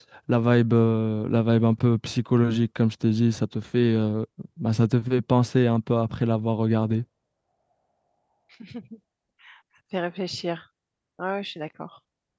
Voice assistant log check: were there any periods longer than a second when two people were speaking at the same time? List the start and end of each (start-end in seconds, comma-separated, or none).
none